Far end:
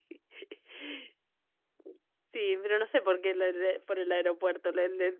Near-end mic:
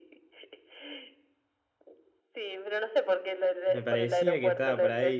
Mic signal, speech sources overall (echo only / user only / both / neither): both